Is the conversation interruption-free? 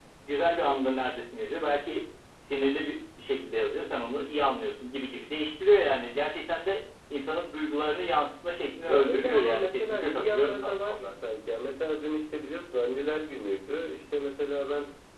No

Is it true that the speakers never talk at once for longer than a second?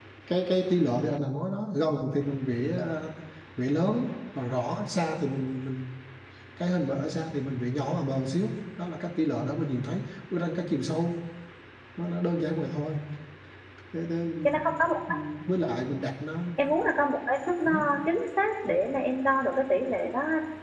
Yes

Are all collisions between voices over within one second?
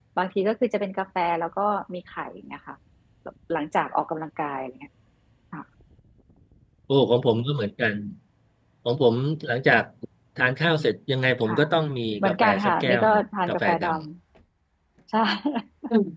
No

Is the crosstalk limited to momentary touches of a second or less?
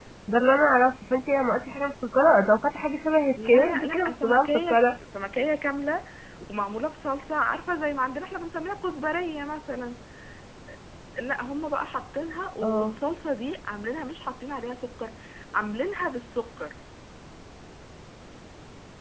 No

